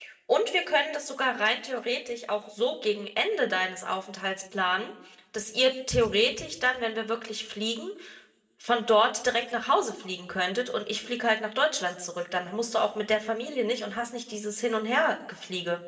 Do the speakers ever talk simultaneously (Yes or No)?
No